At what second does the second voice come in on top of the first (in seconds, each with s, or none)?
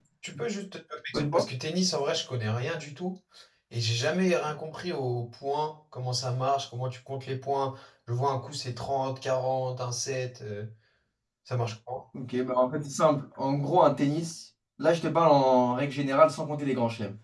none